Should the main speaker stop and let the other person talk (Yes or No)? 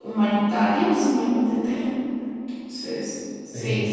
No